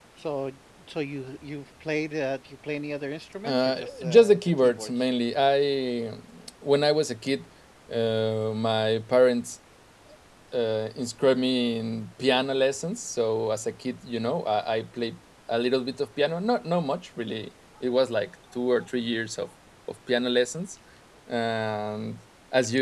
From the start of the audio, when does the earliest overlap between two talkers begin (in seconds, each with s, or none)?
3.5 s